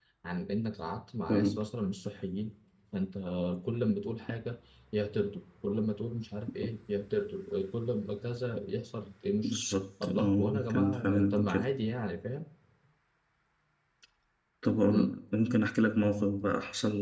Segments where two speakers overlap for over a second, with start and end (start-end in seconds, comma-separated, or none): 10.0-11.7